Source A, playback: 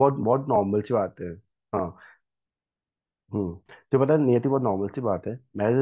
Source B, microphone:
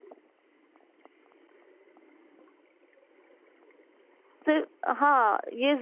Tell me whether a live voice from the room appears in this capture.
Yes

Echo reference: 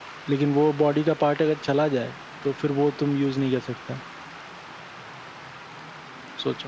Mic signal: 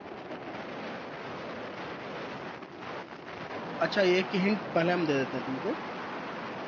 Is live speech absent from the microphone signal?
No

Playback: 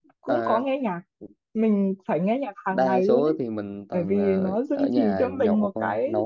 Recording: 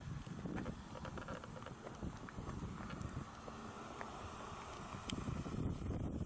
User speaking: No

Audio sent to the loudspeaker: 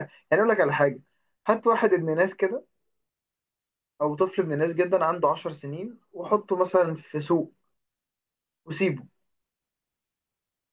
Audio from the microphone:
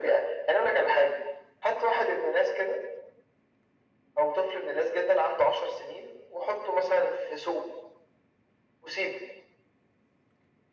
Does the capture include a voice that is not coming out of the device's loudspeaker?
No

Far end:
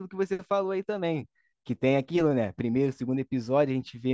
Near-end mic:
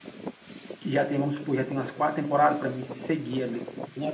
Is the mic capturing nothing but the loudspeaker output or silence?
No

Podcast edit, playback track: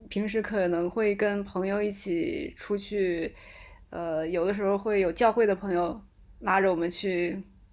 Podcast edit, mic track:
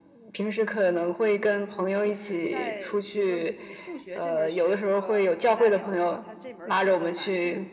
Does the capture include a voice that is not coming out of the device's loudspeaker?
Yes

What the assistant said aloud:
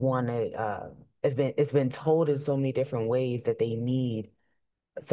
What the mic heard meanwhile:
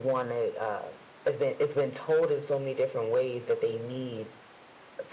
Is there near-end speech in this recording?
No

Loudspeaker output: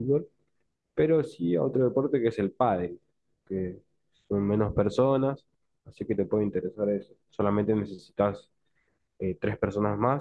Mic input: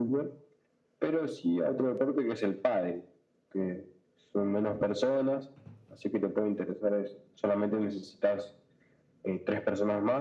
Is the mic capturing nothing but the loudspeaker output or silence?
Yes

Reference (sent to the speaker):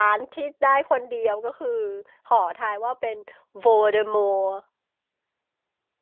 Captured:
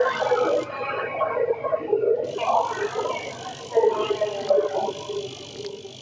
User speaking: No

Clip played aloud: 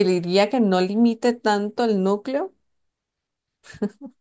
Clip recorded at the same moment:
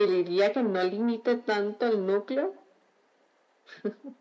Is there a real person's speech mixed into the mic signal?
No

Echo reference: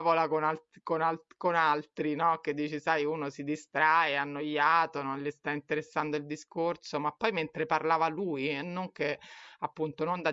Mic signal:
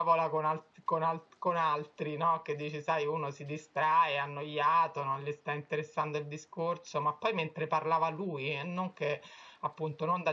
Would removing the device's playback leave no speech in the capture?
Yes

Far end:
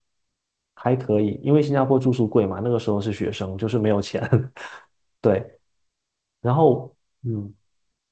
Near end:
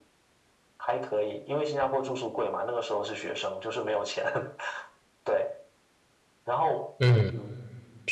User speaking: Yes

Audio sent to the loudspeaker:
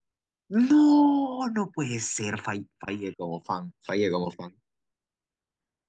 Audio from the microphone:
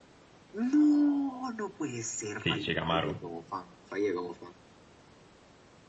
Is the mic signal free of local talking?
No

